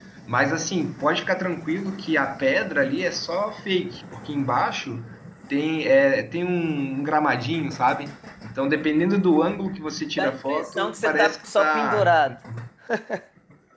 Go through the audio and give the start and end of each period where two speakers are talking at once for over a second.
10.2-12.1

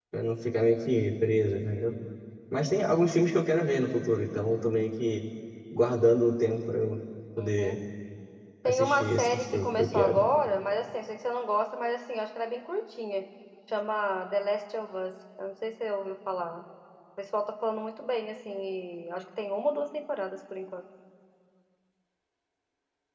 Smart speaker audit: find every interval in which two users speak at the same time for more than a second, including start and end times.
8.6-10.2

